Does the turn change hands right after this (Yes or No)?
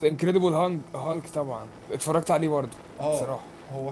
Yes